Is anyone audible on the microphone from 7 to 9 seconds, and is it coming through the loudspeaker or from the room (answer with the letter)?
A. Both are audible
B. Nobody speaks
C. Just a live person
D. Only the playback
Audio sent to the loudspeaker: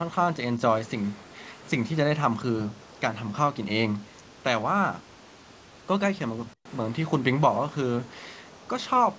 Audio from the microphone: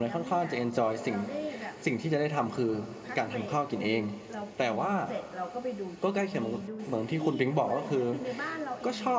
A